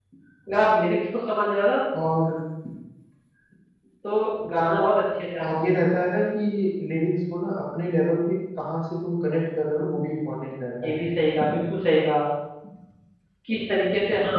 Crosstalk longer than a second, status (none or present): none